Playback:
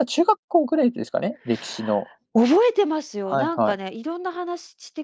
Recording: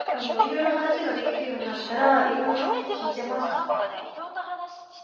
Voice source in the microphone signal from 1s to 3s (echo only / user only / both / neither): both